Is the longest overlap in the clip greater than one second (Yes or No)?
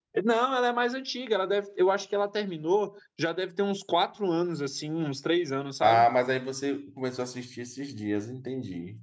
No